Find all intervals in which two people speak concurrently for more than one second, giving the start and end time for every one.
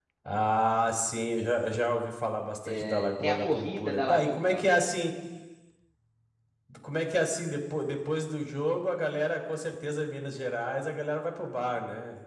2.6-4.8

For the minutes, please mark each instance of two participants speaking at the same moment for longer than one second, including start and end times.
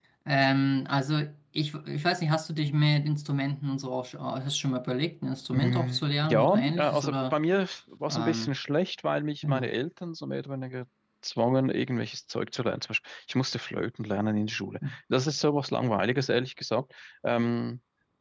5.5-7.3

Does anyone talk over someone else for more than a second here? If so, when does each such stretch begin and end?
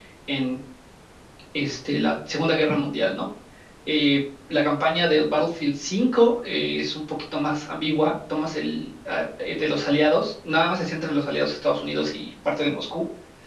none

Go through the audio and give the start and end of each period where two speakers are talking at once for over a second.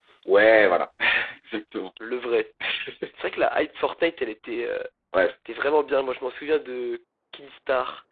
none

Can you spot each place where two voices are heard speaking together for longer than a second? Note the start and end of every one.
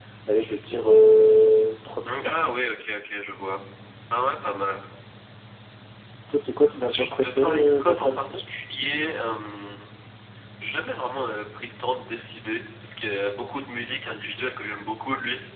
6.8-8.5

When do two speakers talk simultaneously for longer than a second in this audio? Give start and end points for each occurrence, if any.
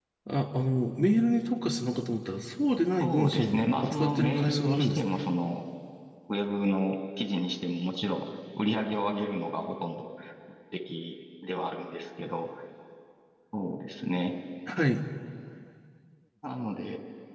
3.0-5.2

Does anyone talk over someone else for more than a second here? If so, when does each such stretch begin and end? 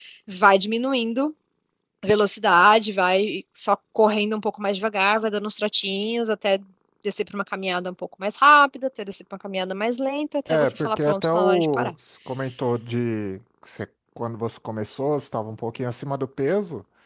10.5-11.9

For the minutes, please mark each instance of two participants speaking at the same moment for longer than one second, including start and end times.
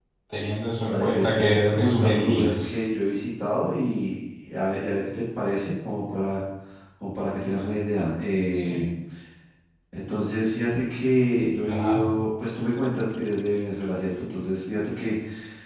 0.9-2.7

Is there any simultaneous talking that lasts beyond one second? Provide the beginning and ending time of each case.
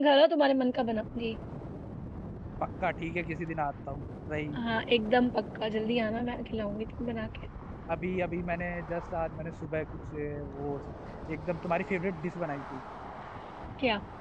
none

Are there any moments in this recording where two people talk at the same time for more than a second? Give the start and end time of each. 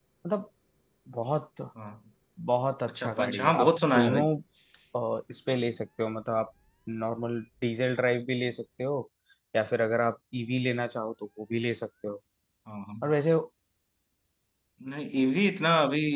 2.9-4.2

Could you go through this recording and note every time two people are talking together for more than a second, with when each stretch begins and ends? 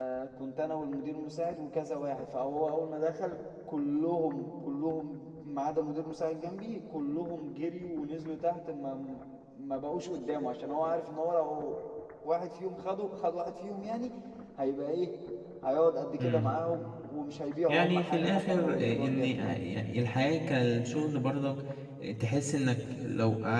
17.7-19.6

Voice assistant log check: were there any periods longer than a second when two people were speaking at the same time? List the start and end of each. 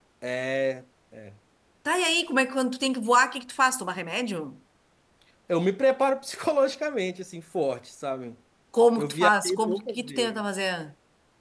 9.0-10.4

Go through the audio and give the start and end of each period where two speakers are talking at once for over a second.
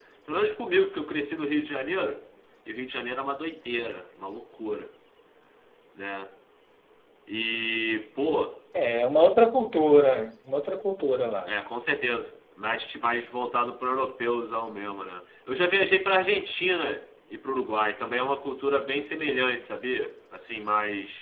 none

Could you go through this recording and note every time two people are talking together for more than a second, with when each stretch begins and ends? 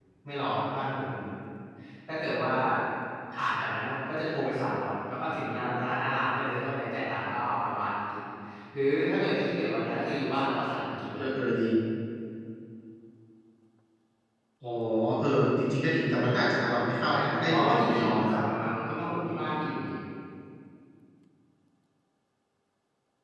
17.1-18.4

